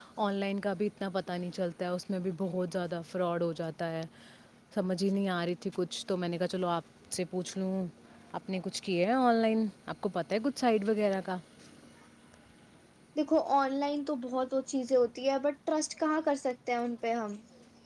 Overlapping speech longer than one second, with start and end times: none

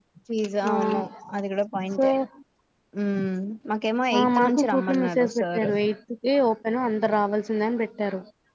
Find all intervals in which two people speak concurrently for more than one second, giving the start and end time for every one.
4.2-5.7

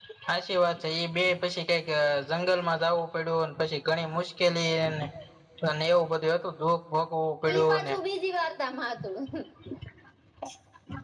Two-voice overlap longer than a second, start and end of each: none

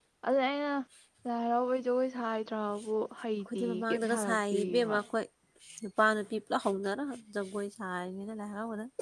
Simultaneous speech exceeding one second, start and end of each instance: 3.5-5.0

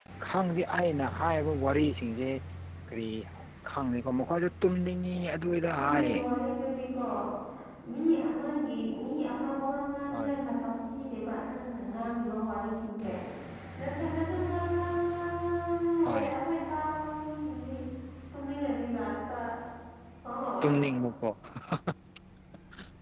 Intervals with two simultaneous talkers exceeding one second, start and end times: none

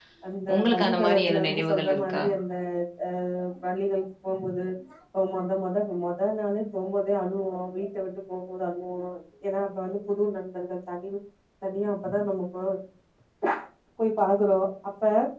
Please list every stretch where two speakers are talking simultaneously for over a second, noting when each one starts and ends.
0.6-2.2

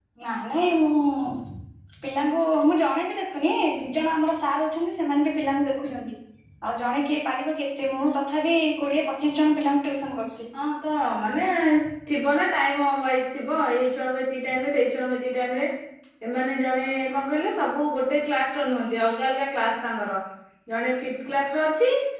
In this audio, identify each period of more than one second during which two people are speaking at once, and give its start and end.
none

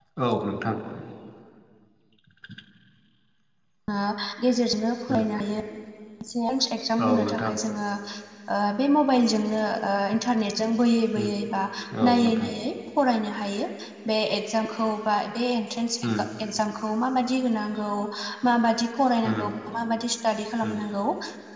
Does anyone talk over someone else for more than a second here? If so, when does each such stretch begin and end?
none

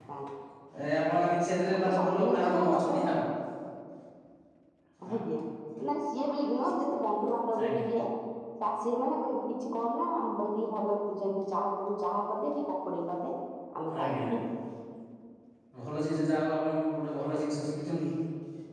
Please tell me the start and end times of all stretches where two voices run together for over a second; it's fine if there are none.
1.7-3.2

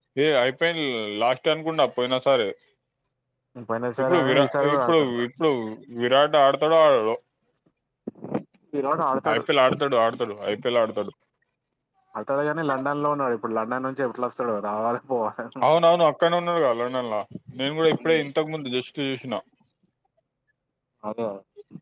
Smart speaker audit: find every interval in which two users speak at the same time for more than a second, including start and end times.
4.0-5.2

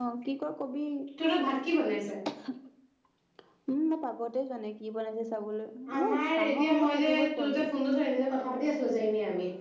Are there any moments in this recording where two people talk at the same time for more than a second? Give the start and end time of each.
5.9-7.7

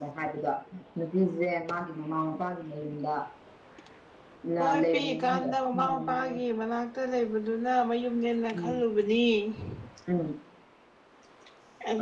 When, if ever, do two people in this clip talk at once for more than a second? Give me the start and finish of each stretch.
4.6-6.3

